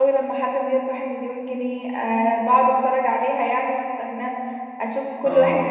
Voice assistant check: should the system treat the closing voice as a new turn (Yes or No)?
No